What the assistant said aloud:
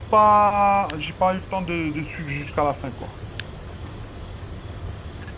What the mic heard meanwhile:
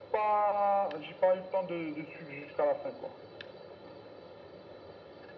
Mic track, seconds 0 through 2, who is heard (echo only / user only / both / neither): echo only